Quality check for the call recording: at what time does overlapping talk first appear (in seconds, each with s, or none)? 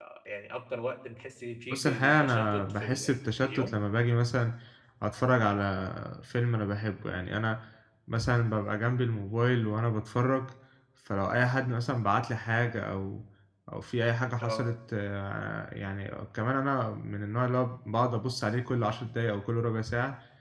1.7 s